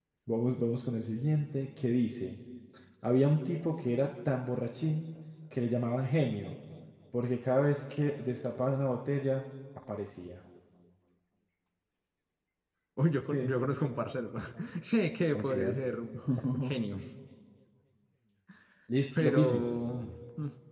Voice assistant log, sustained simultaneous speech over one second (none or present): none